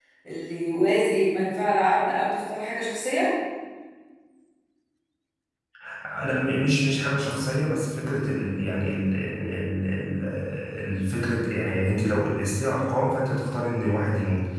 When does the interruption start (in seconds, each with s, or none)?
none